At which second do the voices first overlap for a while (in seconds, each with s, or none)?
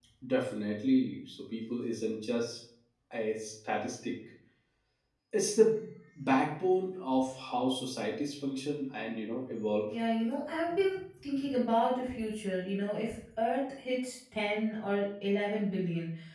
none